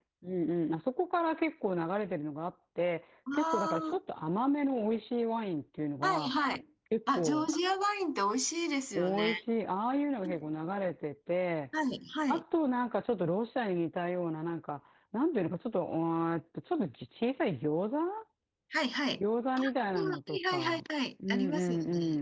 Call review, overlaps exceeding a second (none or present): present